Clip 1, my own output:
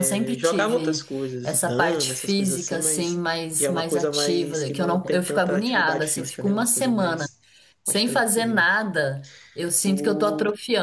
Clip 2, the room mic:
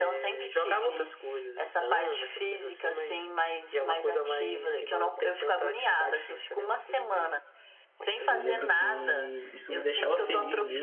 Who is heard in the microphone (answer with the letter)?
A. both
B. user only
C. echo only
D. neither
A